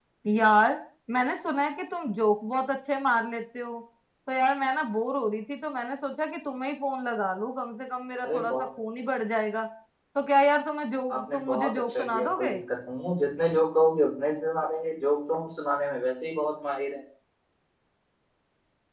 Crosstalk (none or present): present